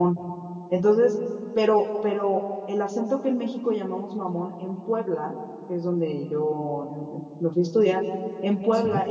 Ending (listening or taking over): listening